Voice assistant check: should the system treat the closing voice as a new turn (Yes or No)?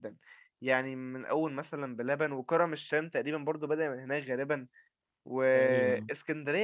No